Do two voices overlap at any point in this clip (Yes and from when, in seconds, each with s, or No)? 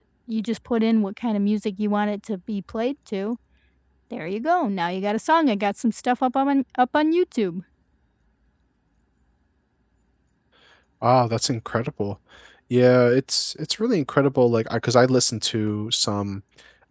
No